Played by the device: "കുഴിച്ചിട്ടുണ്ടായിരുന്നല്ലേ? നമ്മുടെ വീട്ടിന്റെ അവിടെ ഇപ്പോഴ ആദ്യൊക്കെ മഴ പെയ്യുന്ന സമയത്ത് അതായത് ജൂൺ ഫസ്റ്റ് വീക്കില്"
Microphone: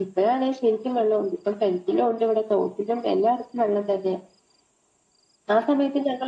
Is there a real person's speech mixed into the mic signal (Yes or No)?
Yes